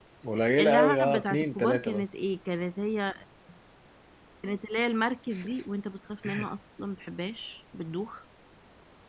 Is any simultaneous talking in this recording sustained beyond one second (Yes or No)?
Yes